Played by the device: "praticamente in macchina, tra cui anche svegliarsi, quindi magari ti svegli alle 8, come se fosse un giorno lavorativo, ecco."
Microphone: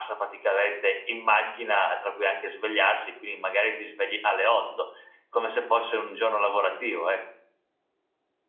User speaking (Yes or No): No